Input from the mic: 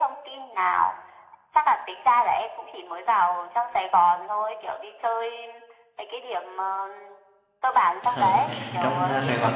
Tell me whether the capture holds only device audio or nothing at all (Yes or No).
No